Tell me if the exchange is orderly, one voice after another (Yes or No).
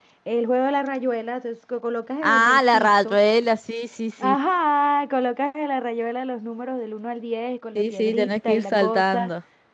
No